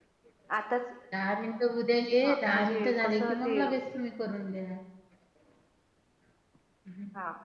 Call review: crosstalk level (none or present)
present